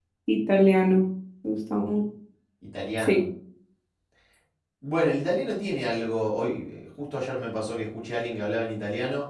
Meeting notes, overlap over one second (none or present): none